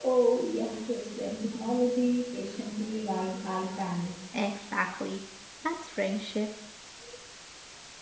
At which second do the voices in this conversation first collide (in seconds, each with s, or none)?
none